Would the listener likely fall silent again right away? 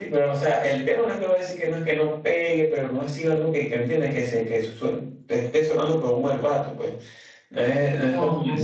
Yes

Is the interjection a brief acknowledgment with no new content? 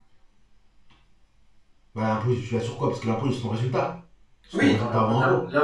No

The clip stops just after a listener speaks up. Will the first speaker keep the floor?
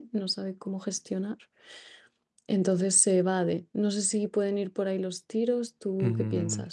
No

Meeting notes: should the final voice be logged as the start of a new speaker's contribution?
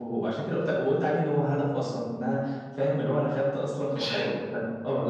No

